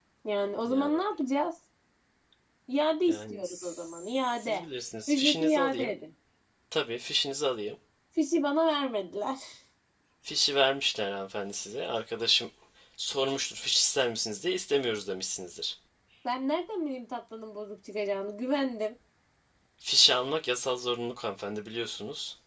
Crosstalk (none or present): present